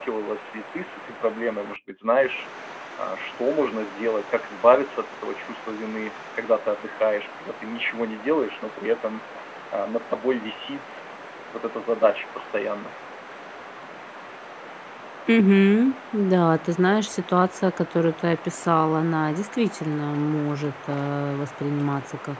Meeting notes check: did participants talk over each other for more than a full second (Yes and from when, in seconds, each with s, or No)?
No